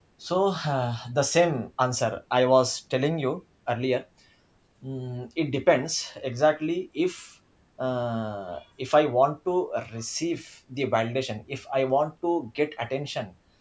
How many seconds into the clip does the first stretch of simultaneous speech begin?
none

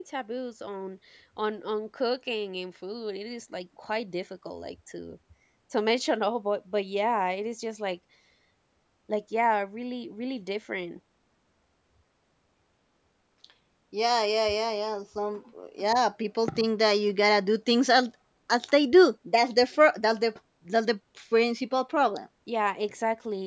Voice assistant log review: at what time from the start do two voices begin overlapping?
none

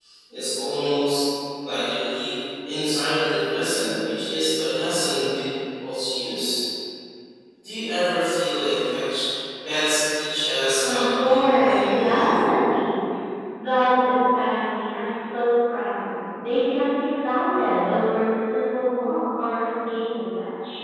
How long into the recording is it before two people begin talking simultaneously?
10.8 s

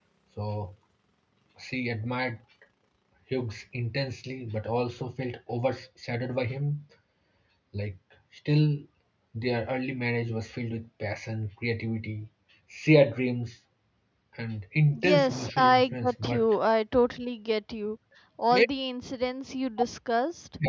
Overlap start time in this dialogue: 14.9 s

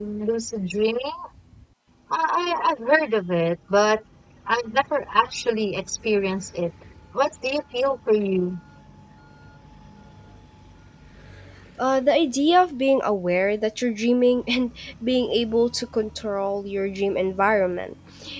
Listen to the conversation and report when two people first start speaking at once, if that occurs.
none

